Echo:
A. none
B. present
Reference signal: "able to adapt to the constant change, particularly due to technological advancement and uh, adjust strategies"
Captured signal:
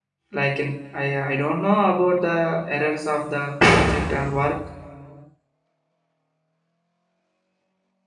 A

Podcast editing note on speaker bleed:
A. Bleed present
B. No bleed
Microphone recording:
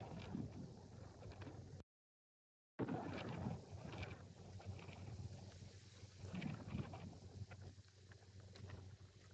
B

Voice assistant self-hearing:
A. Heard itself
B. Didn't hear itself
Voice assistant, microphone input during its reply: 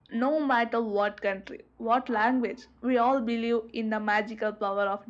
A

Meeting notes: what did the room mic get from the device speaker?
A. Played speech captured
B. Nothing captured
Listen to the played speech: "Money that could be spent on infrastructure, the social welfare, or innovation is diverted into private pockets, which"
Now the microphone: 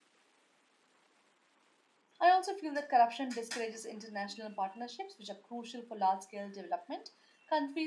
B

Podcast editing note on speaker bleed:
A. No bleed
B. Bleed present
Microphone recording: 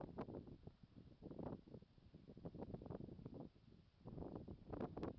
A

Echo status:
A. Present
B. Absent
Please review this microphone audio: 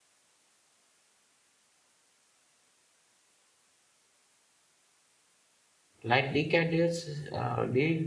B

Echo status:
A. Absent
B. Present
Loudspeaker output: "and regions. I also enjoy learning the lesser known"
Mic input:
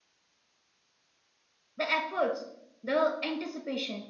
A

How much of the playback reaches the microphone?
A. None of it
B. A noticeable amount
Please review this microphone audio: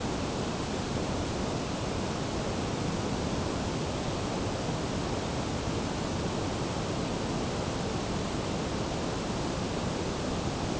A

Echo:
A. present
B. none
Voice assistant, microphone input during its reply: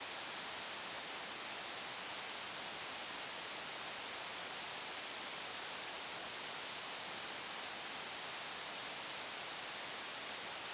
B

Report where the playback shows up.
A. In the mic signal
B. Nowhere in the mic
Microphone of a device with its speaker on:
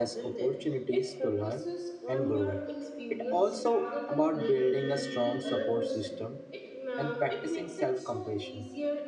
A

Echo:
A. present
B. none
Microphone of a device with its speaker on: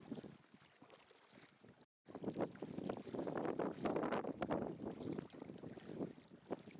B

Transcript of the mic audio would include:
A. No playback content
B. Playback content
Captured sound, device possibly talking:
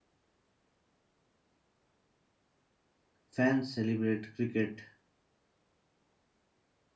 A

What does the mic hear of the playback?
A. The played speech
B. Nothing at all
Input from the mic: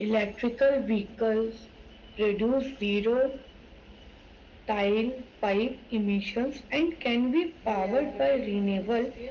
A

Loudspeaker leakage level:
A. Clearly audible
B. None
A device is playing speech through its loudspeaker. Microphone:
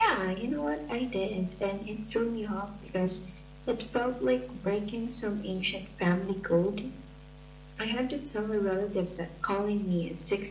A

